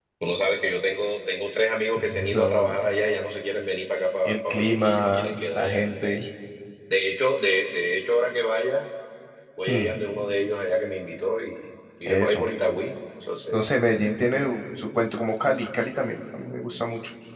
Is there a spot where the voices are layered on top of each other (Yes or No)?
Yes